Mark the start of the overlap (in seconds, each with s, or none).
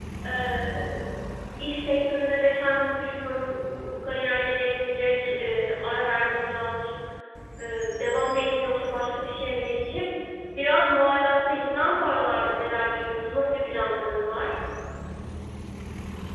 none